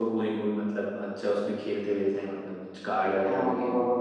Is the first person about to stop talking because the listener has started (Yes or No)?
Yes